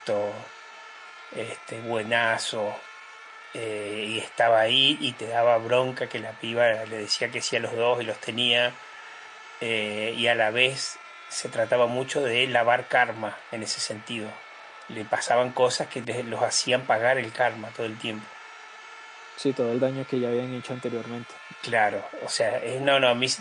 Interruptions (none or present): none